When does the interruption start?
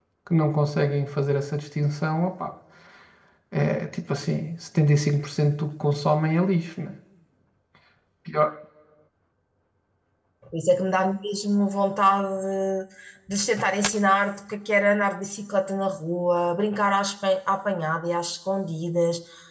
none

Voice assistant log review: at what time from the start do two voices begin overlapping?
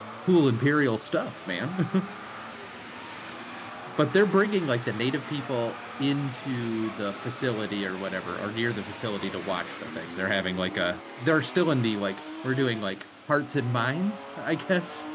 none

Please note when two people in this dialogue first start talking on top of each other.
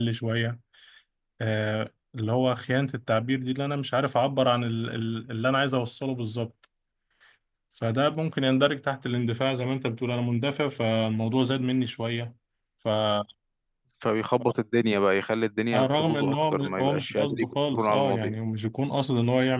15.7 s

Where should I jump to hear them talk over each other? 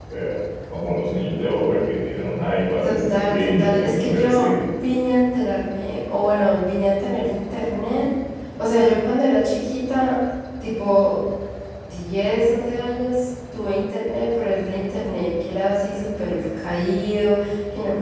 2.8 s

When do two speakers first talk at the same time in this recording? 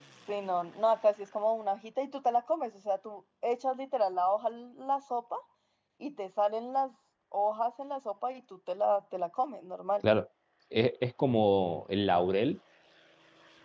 none

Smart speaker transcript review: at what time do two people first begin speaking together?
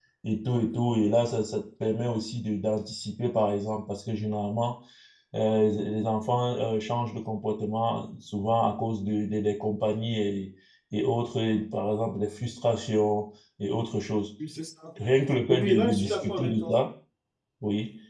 15.5 s

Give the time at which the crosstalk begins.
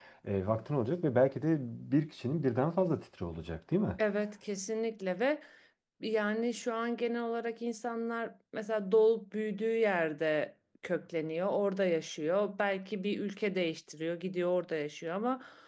none

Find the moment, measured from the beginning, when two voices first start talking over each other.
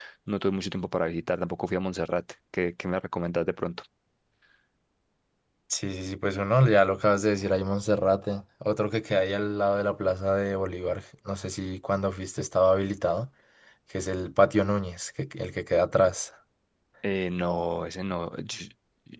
none

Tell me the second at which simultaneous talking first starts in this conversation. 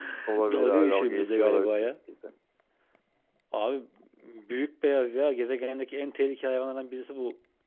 0.5 s

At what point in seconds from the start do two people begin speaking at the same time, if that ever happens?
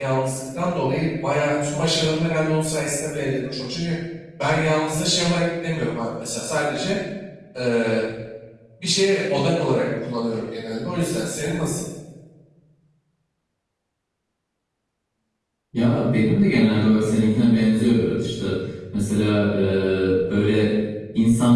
none

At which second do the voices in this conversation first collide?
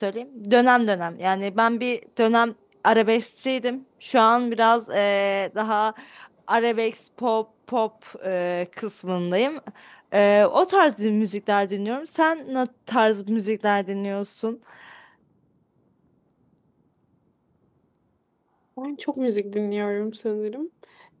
none

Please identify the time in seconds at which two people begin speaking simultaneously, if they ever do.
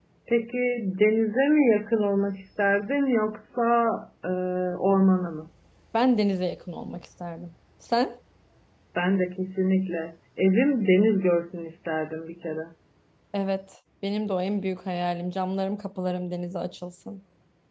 none

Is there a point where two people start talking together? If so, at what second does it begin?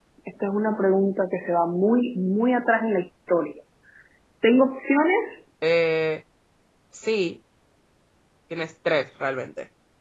none

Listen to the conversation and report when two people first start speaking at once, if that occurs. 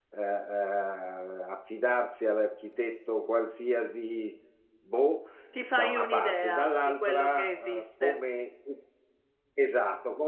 5.7 s

